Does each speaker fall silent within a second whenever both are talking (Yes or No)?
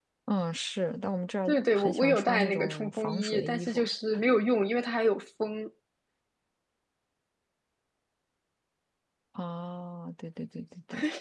No